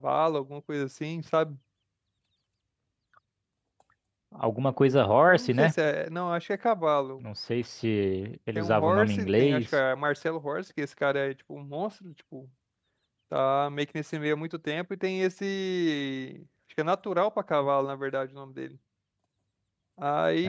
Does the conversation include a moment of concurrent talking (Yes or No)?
Yes